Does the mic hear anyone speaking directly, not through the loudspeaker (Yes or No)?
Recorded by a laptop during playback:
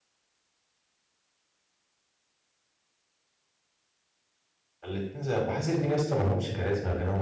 Yes